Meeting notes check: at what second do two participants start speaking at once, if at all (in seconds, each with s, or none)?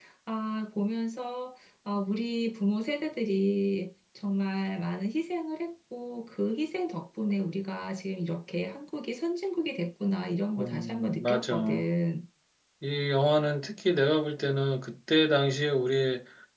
10.6 s